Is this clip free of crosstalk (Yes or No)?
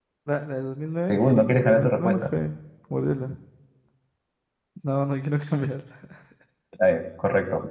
No